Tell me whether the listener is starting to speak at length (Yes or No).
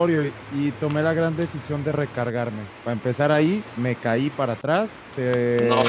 No